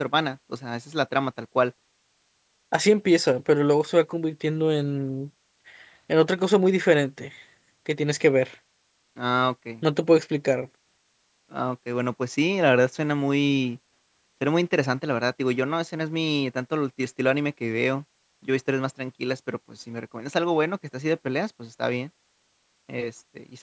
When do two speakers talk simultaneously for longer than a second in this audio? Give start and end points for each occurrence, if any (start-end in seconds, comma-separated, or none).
none